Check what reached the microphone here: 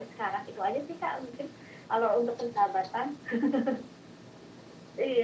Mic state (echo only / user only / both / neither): echo only